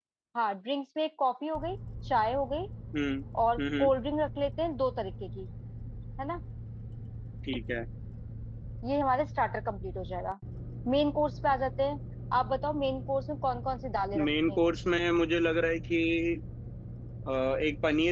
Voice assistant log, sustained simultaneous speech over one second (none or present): none